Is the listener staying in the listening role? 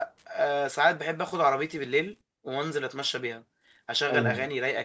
Yes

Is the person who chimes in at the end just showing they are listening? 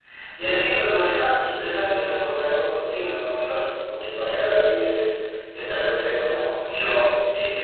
No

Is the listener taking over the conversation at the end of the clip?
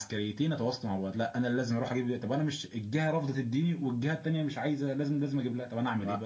Yes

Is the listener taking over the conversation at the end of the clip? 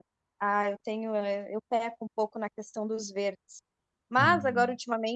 No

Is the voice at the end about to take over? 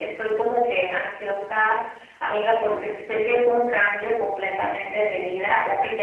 No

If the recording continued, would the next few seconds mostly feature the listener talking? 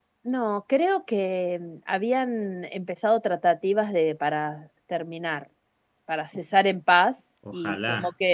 No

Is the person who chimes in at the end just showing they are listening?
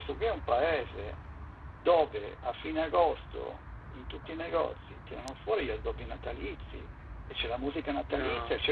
Yes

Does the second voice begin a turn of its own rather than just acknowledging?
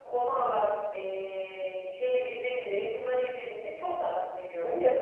Yes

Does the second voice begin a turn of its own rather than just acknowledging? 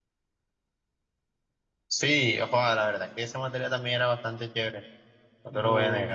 Yes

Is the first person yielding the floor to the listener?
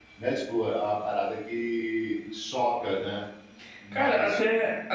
Yes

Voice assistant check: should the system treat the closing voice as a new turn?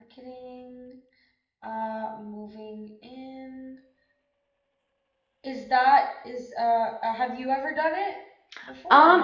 Yes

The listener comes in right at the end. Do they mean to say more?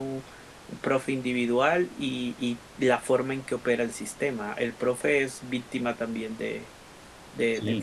Yes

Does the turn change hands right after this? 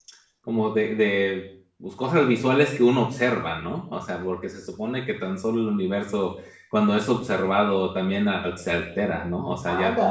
Yes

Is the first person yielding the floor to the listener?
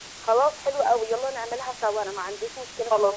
Yes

